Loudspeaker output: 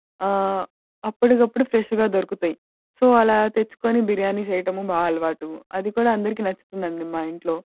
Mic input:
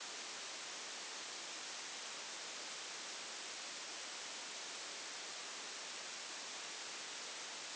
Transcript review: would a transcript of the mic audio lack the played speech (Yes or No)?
Yes